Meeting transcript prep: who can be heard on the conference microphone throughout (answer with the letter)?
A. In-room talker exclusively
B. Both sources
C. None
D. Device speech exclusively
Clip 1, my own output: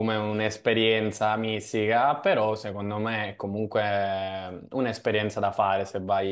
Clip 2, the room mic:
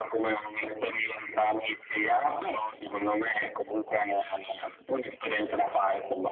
D